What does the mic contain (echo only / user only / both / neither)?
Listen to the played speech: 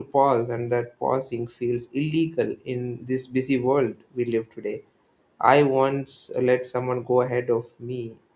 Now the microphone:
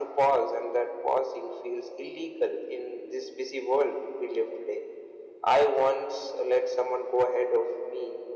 echo only